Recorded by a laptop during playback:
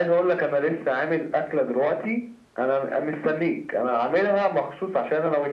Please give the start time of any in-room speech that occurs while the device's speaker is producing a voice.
none

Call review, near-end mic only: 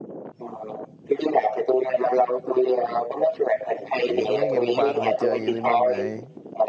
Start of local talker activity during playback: 4.0 s

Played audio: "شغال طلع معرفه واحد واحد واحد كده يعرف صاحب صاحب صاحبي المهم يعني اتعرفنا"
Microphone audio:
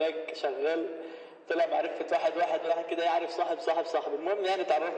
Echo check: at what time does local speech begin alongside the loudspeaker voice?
none

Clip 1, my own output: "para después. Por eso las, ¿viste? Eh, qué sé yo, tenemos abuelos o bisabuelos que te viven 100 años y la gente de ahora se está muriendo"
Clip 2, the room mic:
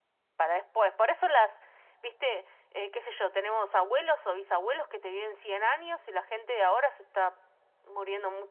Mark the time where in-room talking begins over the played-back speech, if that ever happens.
none

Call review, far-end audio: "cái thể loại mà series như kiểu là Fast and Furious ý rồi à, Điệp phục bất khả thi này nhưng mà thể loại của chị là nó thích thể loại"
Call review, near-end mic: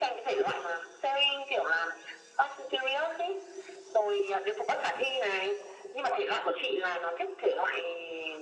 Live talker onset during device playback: none

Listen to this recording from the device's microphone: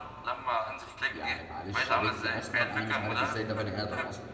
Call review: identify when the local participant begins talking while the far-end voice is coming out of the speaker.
1.1 s

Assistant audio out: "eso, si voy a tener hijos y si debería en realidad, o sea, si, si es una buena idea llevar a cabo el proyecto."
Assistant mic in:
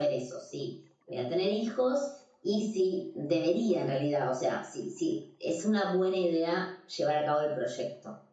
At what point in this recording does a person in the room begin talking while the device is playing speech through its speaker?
none

